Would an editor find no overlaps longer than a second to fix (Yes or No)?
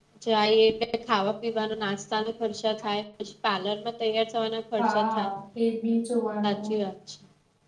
Yes